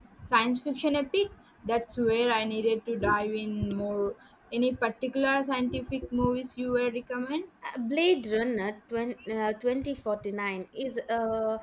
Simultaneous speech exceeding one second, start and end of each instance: none

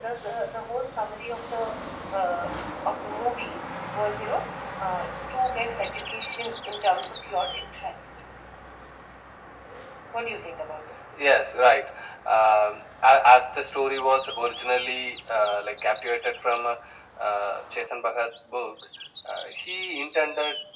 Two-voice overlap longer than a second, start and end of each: none

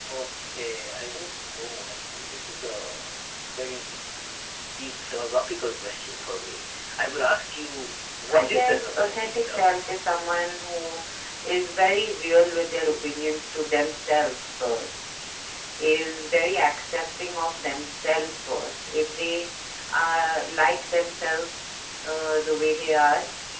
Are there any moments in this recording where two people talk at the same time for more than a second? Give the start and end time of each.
8.3-9.8

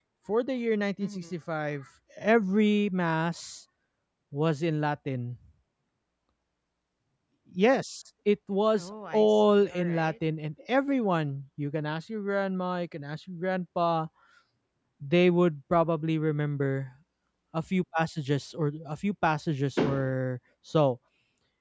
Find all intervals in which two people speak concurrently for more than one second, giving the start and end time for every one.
8.8-10.1

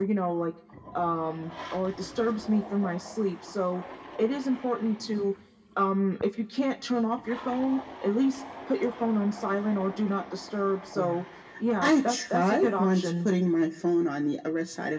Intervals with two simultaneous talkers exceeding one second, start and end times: 11.8-13.3

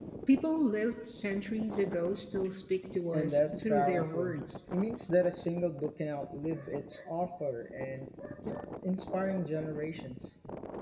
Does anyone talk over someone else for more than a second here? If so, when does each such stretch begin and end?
3.1-4.4

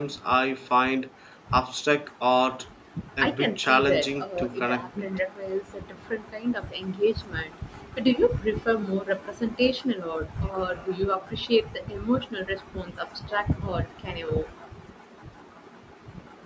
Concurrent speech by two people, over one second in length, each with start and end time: 3.2-5.1

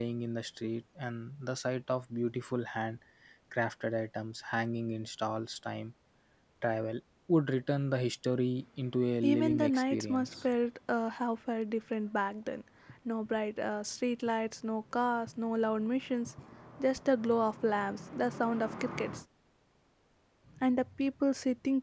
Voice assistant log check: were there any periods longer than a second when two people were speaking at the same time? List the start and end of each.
9.2-10.4

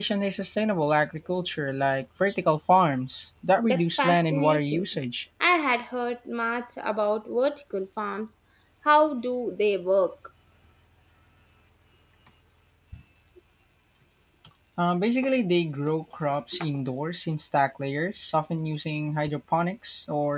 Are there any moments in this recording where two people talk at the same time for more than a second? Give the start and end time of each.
3.6-4.8

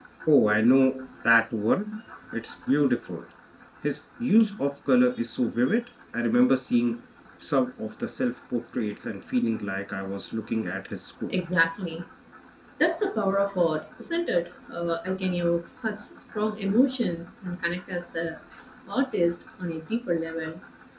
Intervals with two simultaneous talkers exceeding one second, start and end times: none

